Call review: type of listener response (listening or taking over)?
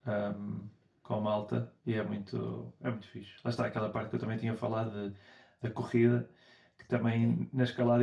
listening